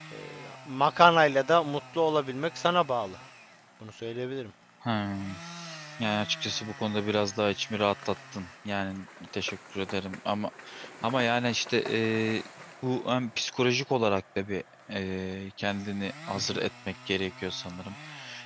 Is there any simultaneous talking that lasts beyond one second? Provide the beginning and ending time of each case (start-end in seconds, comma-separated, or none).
none